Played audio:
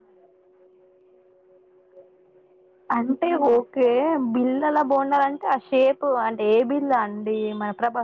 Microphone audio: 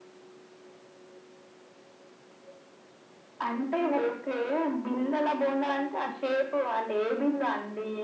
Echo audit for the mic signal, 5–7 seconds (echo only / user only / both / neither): echo only